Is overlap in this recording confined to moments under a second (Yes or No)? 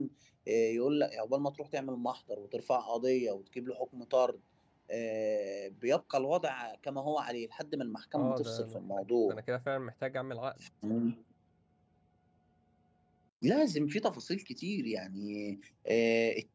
No